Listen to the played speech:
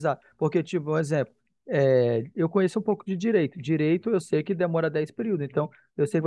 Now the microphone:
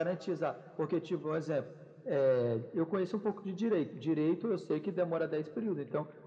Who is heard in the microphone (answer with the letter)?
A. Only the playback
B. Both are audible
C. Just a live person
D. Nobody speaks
A